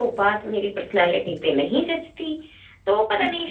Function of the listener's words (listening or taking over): listening